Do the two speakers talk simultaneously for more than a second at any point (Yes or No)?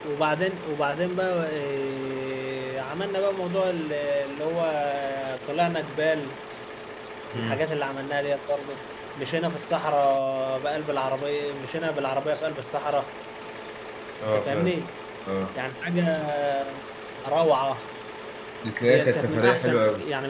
Yes